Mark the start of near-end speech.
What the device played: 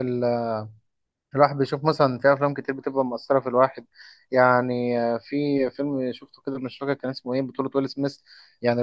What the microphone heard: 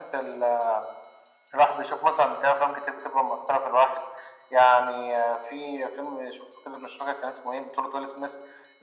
none

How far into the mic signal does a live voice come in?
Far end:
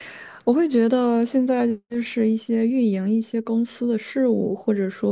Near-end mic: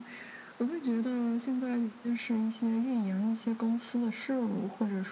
none

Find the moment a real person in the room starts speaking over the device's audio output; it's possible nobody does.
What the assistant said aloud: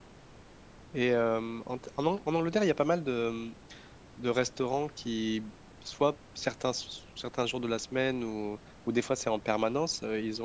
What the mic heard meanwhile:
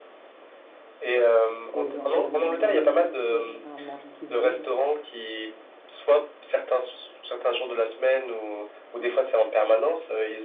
1.7 s

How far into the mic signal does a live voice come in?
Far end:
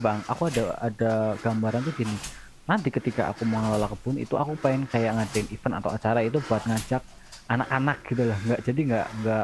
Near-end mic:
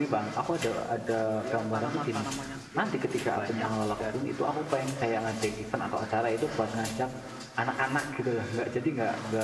1.4 s

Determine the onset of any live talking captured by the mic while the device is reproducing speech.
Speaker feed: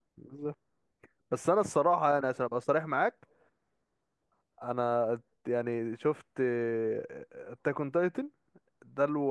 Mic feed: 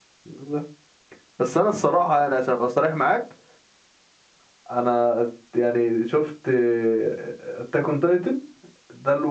none

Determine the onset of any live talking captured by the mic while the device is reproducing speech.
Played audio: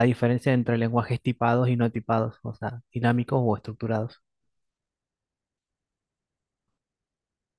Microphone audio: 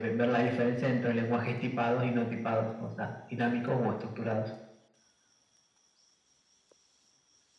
none

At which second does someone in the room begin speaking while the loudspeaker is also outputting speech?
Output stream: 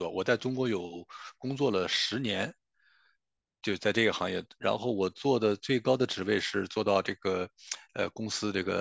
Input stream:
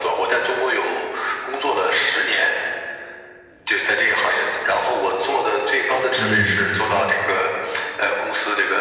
6.1 s

